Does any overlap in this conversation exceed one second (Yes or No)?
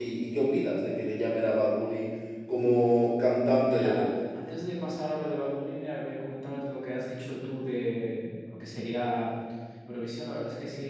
No